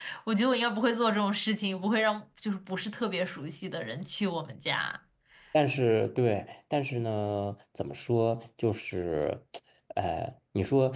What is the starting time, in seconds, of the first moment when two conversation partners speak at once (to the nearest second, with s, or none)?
none